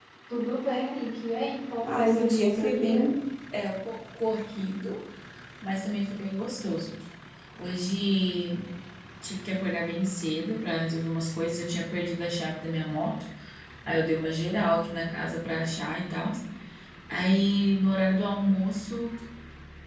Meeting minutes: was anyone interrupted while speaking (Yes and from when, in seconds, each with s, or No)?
Yes, from 1.8 s